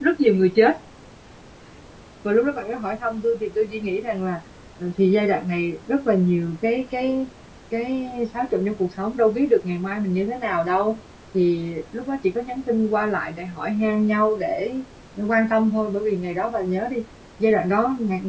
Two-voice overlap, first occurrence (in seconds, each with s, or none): none